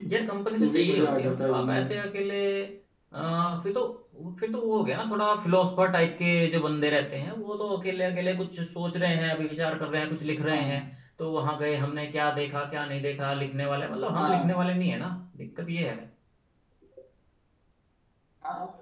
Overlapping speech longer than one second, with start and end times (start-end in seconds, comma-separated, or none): 0.6-2.0